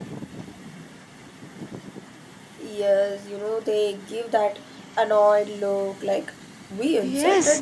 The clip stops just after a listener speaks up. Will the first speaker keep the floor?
No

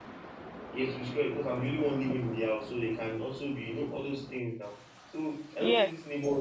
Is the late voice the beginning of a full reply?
No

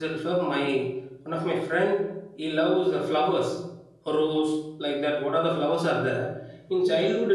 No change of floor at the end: Yes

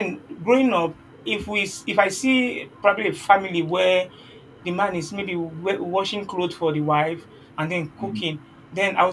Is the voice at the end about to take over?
No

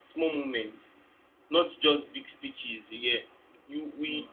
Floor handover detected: No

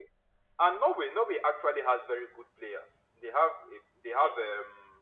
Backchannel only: Yes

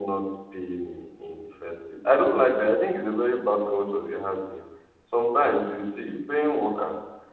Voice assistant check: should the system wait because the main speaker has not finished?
Yes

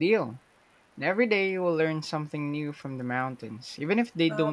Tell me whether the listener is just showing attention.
No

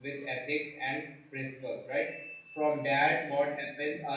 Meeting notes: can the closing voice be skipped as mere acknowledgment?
Yes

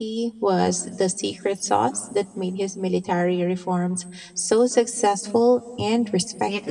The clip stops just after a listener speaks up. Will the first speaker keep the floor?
No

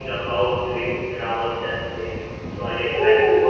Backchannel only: No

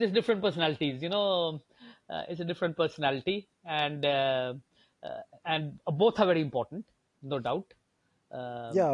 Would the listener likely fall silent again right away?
No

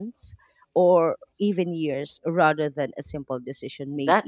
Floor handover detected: Yes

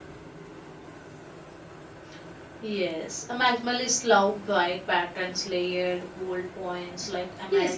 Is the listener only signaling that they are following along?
No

